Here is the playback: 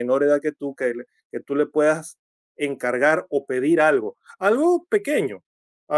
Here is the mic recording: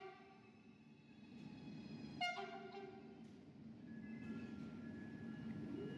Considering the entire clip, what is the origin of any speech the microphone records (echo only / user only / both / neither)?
neither